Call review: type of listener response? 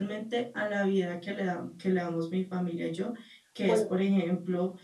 listening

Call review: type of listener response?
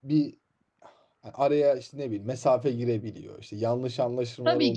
taking over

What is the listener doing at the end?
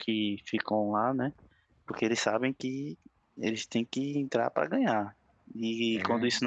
listening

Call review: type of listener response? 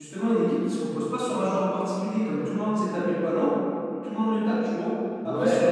listening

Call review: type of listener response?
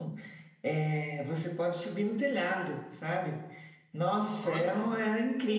listening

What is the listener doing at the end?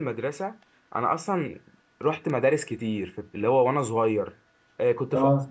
listening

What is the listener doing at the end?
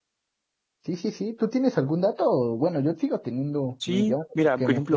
taking over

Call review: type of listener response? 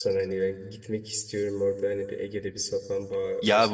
taking over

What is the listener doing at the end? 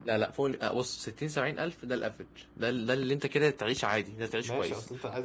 taking over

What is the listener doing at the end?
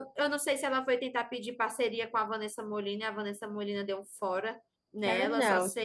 listening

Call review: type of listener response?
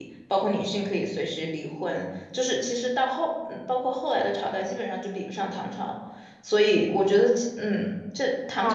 taking over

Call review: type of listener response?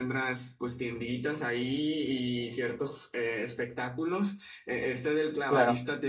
listening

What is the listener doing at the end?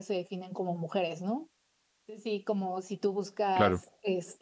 listening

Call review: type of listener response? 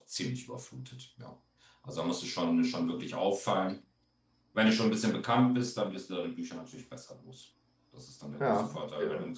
listening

